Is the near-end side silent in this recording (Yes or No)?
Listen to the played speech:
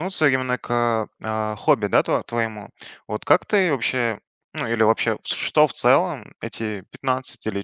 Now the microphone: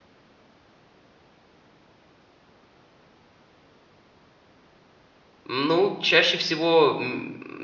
No